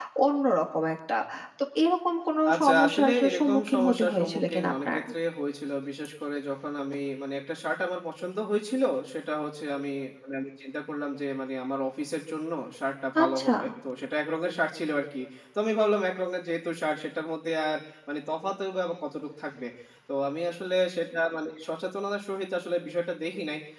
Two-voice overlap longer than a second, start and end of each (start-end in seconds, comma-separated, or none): 2.5-5.0